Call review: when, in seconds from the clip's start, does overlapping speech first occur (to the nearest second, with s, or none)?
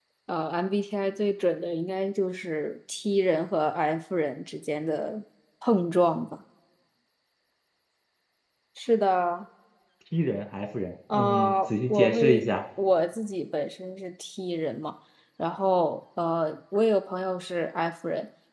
11 s